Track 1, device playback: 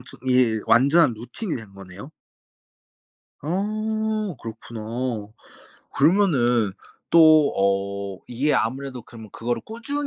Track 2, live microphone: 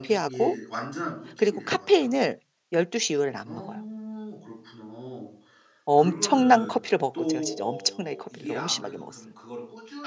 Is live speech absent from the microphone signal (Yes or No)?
No